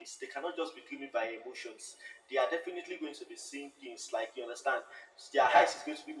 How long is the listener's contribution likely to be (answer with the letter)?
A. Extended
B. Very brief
B